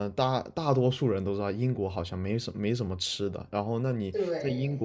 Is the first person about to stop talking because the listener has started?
No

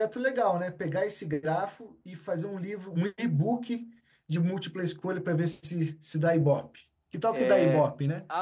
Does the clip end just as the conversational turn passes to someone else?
Yes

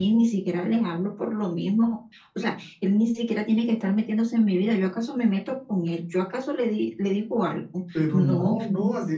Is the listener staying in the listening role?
No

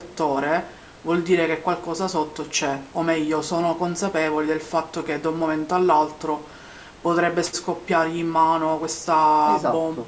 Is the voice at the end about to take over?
No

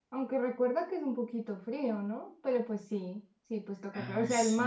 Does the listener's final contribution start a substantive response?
No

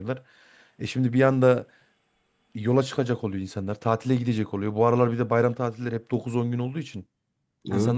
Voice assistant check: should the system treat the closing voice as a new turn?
No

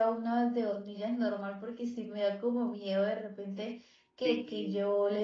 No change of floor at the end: Yes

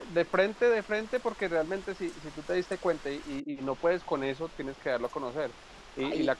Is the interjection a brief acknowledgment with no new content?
Yes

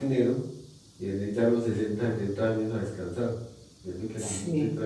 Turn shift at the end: No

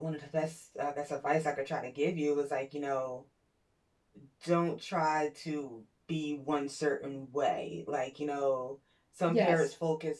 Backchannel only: Yes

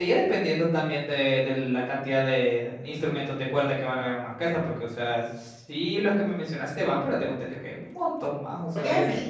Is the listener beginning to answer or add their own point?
Yes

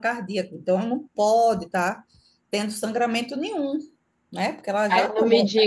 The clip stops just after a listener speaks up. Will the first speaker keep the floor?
No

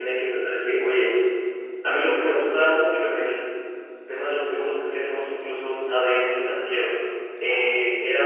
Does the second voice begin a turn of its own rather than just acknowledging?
No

